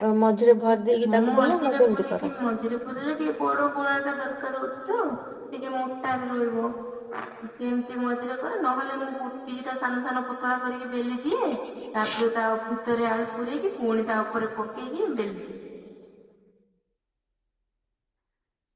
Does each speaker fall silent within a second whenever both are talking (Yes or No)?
No